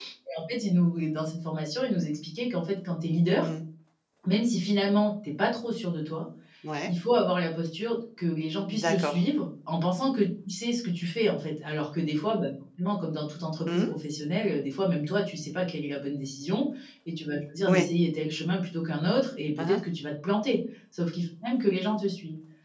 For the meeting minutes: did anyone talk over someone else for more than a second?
No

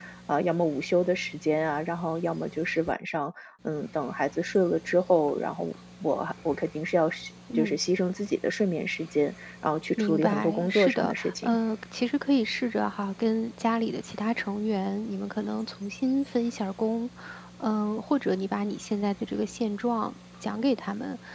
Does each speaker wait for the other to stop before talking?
No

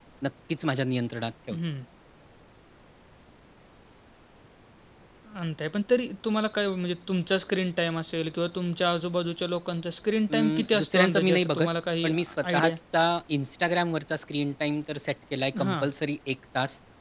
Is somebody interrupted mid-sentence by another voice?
Yes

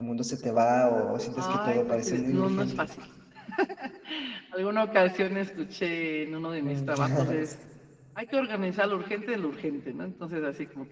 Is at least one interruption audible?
Yes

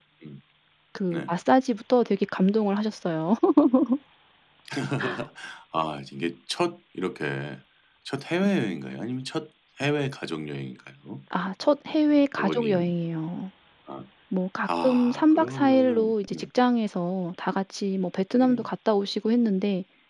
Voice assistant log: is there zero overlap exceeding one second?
No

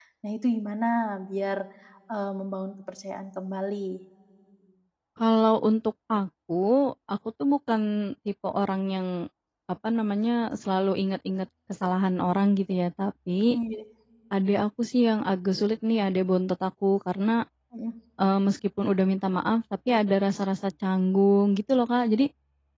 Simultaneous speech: No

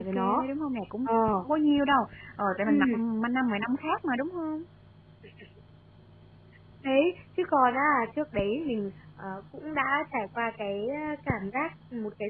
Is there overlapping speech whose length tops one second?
No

